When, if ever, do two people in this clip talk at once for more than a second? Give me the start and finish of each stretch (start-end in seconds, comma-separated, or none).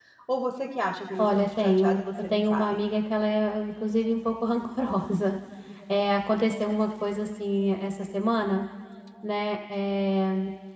1.2-2.6